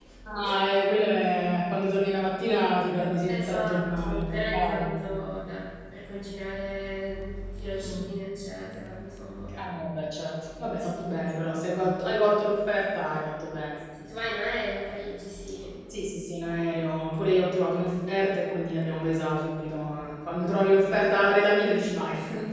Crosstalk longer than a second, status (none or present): present